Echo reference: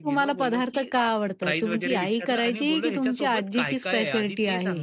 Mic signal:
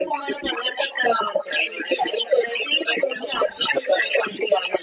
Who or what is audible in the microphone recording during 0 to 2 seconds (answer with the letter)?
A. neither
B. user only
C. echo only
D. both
C